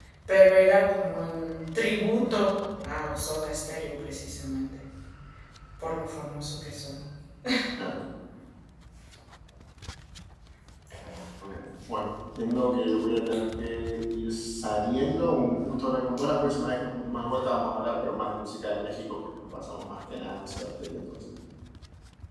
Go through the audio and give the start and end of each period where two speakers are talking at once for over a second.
none

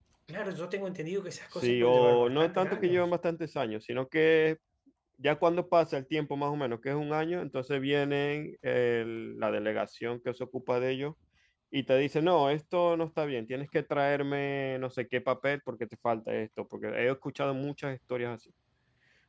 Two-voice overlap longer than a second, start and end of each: 1.5-3.1

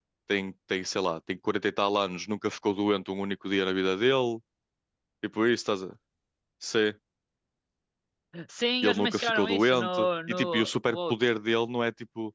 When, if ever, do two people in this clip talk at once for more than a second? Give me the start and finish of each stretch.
8.8-11.1

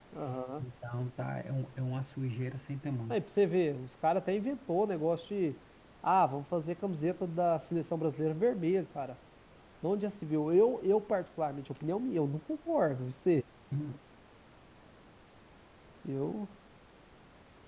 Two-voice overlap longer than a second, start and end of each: none

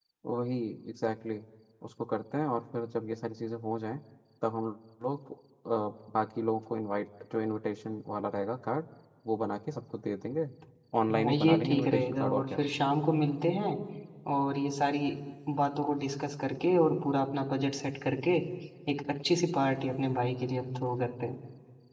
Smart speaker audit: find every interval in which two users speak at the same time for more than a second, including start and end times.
11.1-12.6

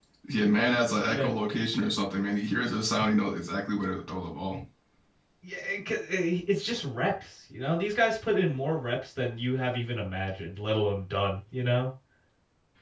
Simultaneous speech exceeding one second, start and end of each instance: none

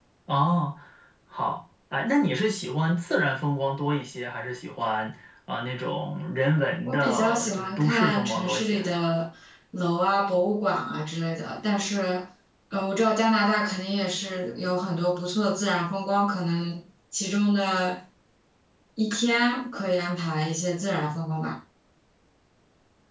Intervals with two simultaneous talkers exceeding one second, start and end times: 6.8-8.8

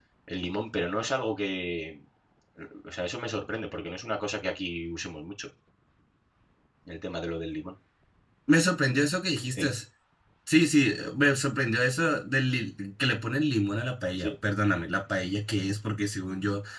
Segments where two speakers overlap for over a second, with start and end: none

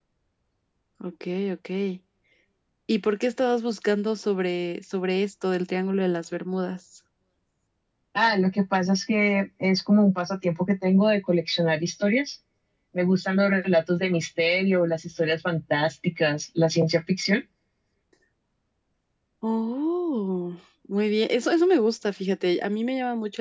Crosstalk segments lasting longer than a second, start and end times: none

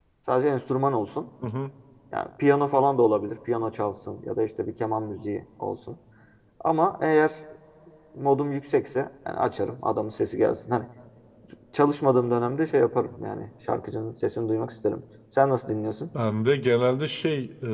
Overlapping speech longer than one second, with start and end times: none

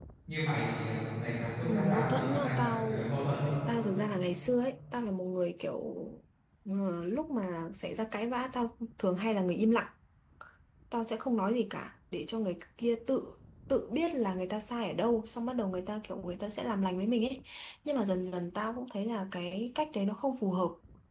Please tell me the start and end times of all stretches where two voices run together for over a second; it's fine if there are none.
1.7-3.0

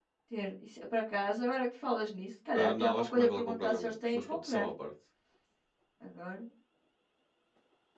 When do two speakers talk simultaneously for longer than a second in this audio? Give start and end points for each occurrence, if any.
2.6-4.7

